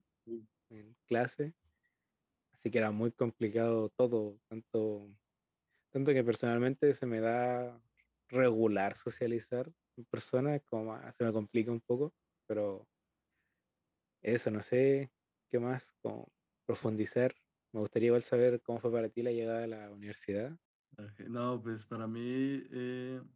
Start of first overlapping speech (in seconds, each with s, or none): none